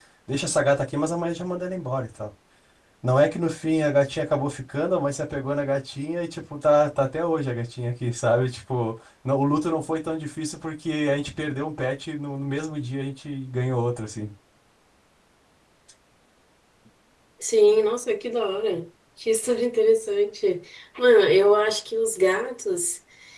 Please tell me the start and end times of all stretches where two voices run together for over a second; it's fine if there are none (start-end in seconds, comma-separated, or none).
none